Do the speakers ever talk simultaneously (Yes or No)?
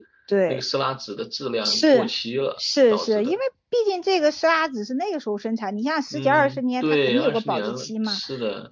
Yes